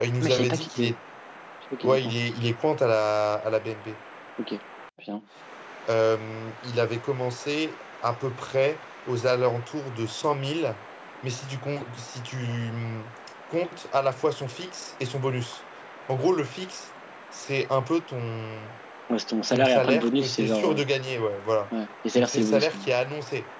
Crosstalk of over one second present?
Yes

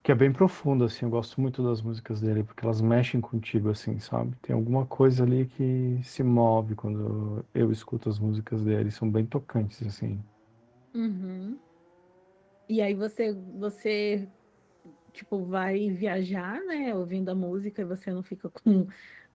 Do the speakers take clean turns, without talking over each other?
Yes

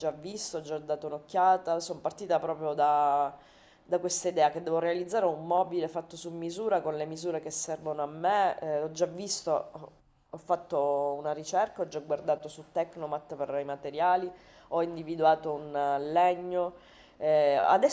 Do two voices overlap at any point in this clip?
No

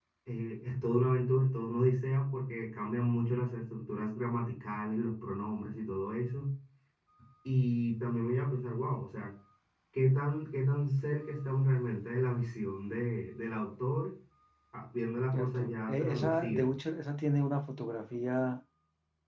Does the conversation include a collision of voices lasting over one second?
Yes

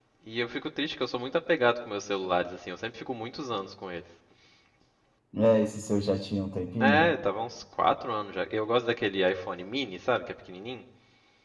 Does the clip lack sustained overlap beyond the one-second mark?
Yes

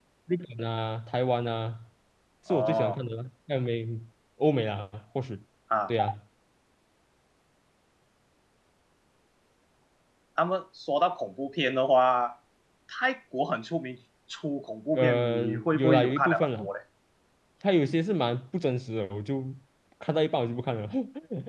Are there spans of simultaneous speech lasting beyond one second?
Yes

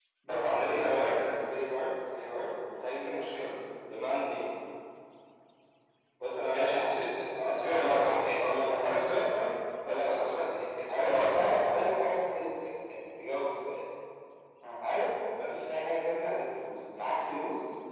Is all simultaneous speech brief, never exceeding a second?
No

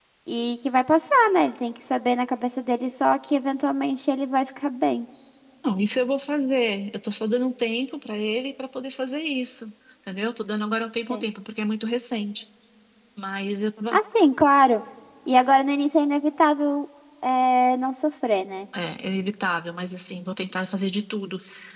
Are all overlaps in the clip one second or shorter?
Yes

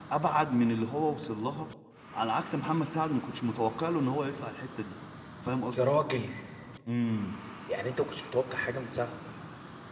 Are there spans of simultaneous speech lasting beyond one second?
No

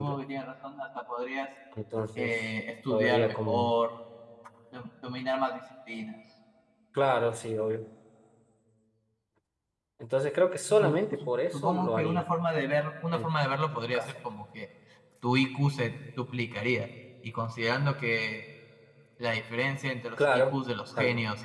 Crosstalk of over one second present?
Yes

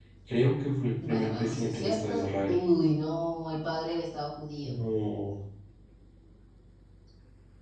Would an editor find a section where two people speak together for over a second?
Yes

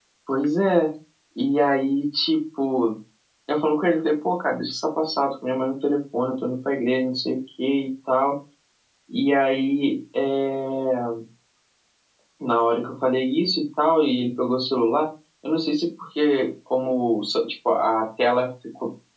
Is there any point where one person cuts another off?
No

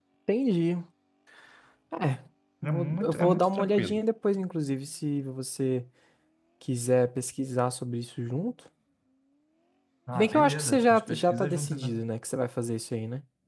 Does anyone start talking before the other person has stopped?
Yes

